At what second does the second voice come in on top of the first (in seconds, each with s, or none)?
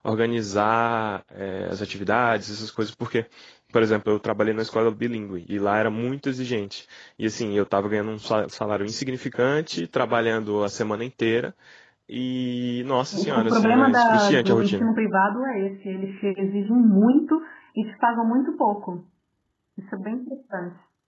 13.1 s